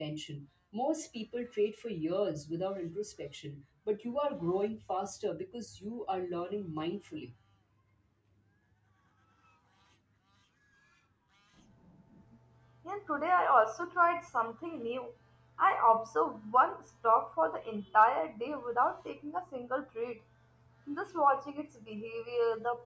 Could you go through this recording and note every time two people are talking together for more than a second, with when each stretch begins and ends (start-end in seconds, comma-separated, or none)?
none